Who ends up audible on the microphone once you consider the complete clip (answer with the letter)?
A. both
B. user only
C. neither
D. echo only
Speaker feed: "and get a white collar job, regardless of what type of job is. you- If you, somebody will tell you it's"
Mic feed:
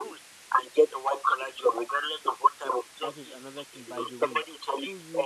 A